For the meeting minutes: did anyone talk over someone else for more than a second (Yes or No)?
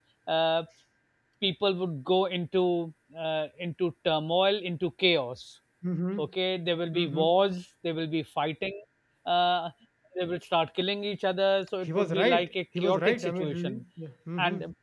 Yes